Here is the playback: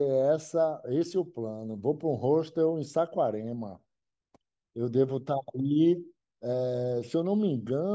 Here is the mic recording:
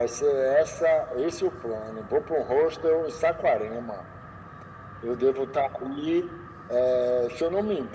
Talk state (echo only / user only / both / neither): echo only